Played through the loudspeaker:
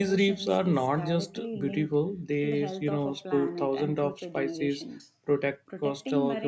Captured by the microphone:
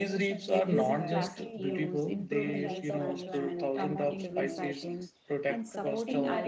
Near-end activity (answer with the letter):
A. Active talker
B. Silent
A